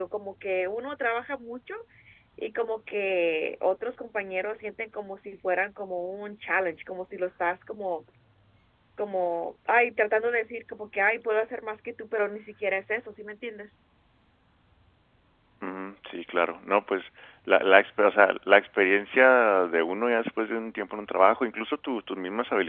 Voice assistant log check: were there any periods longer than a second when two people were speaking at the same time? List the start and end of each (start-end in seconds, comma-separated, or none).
none